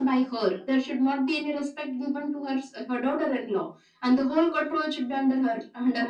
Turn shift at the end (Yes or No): Yes